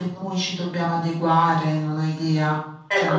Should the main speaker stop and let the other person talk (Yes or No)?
Yes